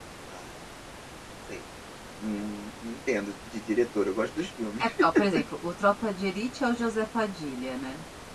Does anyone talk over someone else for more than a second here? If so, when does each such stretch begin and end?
none

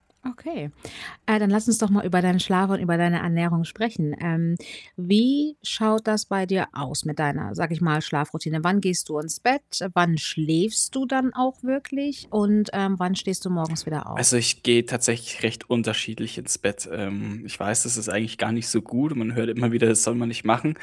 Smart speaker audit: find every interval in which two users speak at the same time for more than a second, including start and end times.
none

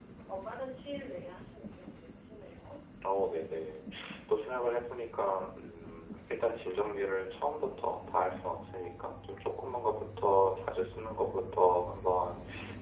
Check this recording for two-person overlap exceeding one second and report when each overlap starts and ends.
none

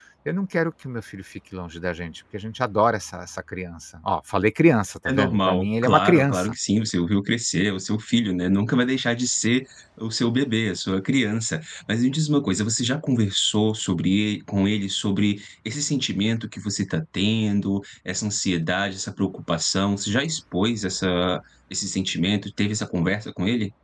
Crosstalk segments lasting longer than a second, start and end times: 5.1-6.5

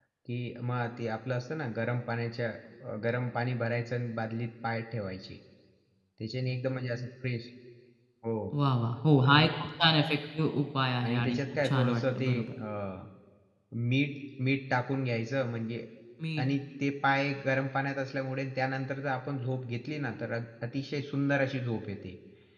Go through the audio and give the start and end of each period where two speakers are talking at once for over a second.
11.0-12.5

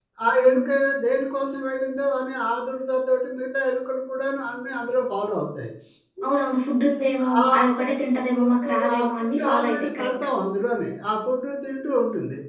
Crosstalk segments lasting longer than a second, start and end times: 8.4-10.1

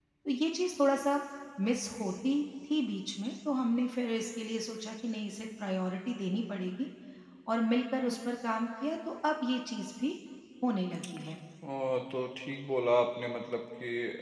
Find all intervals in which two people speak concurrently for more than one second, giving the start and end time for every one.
none

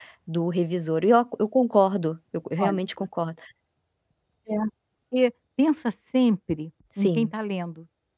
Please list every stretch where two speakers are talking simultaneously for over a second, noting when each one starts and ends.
none

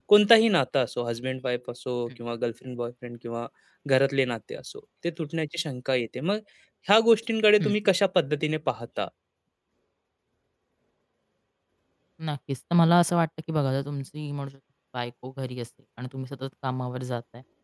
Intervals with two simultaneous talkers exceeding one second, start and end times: none

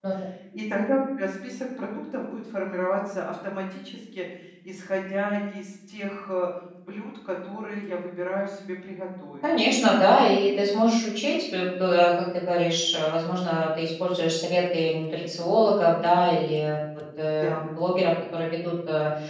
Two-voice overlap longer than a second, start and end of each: none

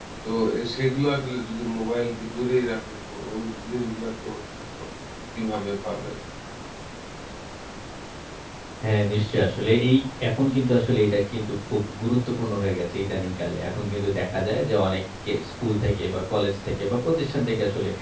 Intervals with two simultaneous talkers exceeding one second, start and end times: none

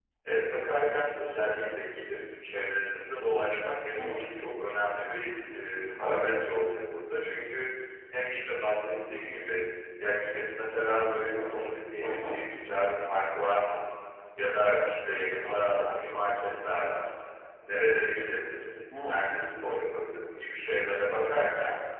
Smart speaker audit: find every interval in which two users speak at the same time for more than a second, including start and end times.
none

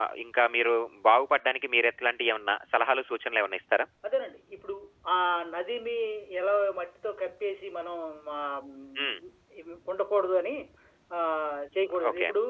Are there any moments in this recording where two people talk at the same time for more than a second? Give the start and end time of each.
none

